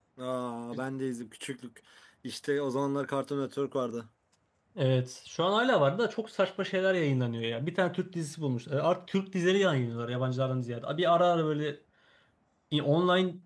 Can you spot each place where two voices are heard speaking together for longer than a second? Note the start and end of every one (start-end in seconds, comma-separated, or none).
none